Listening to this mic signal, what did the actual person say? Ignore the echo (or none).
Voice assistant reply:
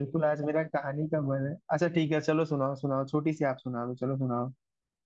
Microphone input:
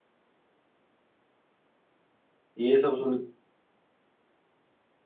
ये सब सुन